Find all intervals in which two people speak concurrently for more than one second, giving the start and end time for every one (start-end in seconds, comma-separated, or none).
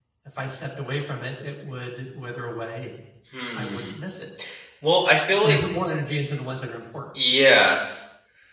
none